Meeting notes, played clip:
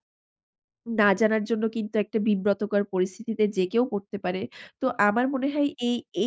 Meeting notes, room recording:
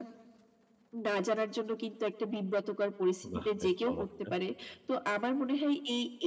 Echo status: present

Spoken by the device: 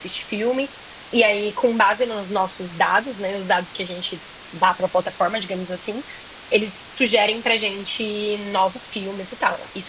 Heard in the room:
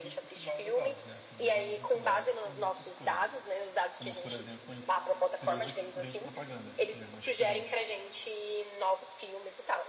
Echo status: present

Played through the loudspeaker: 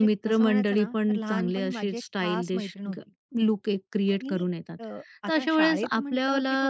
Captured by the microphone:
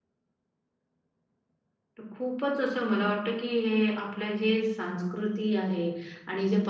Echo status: none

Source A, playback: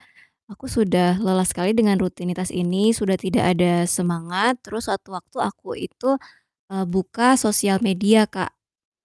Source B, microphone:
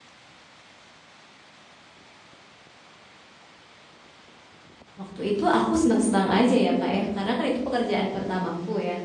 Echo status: none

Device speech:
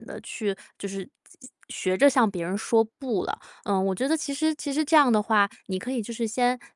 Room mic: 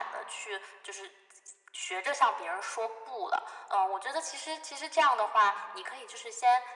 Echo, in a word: present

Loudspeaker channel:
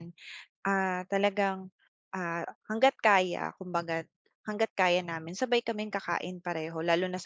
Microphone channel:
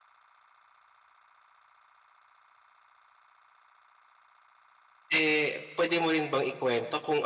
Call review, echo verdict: none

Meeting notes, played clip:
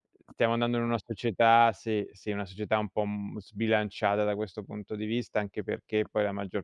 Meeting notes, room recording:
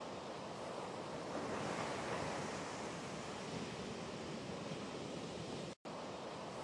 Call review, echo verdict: none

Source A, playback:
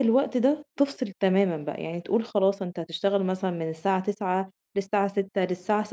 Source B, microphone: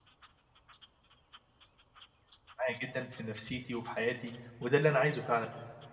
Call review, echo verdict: none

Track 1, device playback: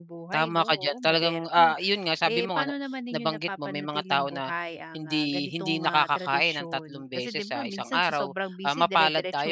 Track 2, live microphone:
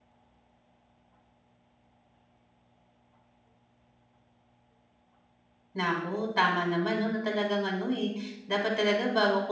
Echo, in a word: none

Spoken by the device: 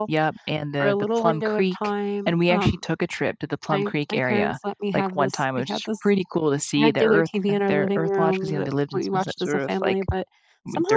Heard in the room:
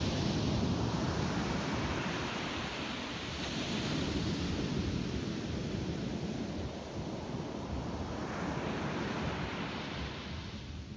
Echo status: none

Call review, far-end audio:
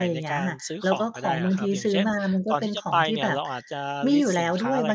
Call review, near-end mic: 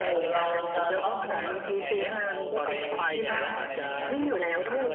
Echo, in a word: present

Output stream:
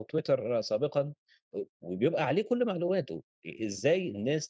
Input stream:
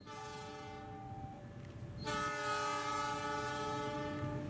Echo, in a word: none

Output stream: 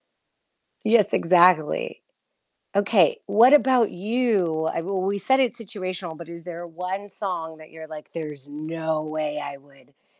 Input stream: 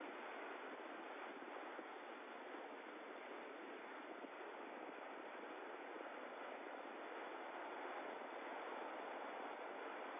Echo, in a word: none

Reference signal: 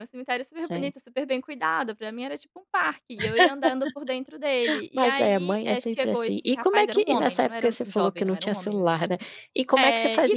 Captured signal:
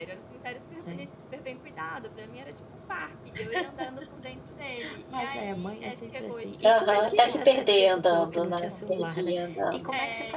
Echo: present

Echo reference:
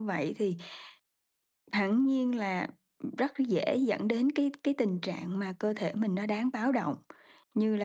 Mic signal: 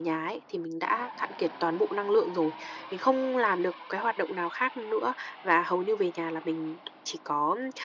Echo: none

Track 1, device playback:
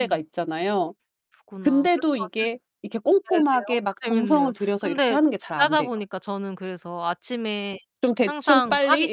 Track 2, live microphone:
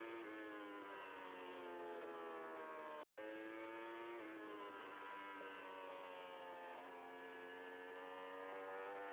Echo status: none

